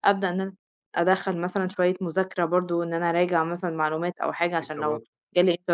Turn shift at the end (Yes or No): No